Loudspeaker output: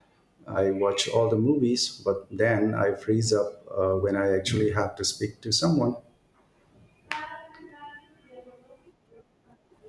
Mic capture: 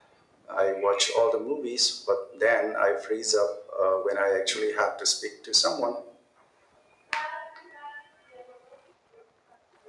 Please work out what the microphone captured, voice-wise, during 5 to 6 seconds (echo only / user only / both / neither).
echo only